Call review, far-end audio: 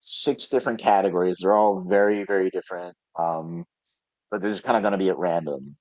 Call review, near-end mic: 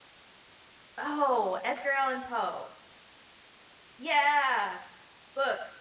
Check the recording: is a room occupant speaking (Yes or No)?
Yes